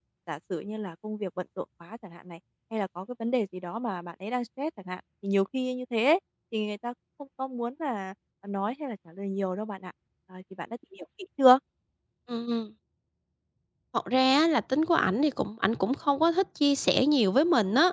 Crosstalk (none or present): none